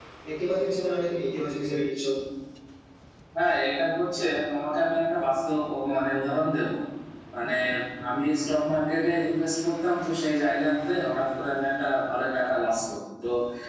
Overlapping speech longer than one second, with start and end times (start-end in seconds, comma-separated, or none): none